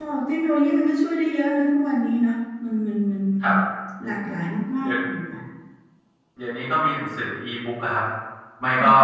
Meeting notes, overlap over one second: none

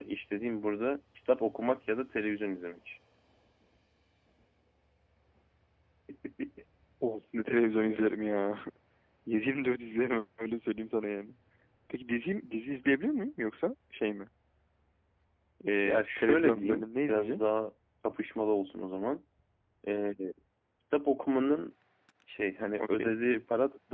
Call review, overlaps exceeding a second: present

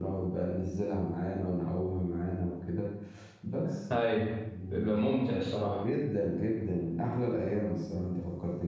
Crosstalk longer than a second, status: none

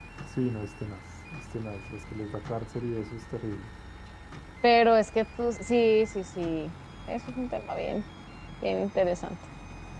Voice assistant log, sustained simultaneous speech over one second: none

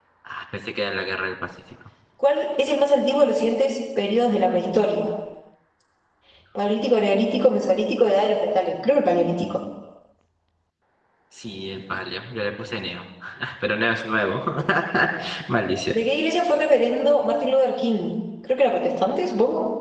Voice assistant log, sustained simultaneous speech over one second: none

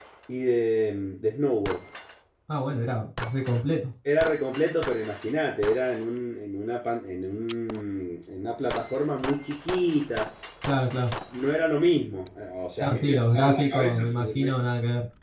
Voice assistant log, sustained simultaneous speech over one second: present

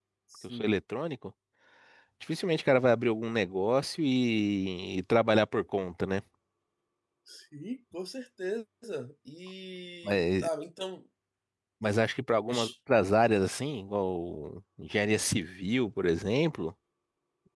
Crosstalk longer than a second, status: none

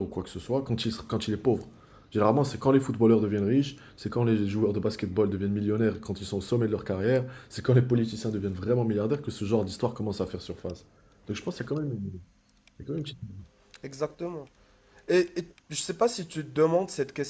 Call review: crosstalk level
none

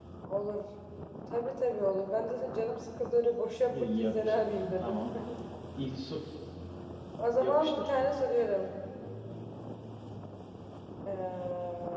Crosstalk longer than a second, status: present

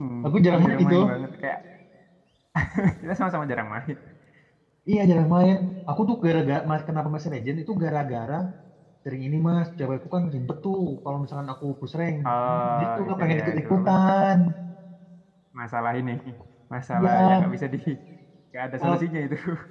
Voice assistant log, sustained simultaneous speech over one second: present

